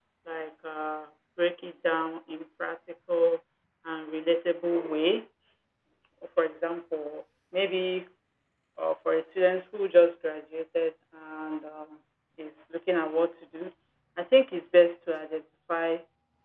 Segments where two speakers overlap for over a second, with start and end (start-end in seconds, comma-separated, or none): none